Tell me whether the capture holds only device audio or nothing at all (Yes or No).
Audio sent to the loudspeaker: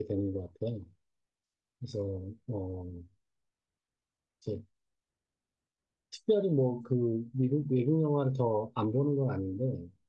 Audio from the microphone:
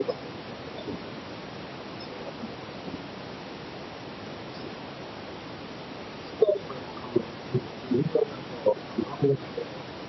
Yes